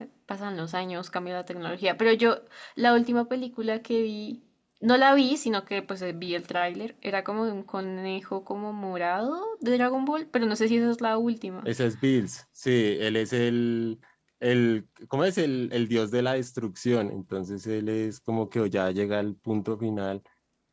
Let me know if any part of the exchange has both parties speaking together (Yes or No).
No